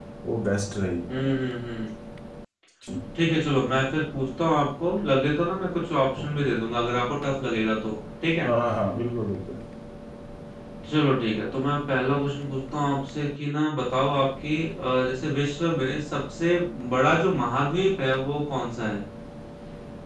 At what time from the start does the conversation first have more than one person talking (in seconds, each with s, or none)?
none